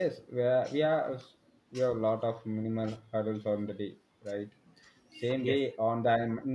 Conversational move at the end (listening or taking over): listening